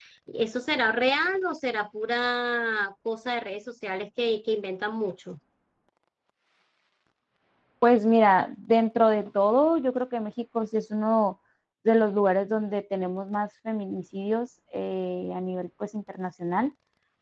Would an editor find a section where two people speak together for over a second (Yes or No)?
No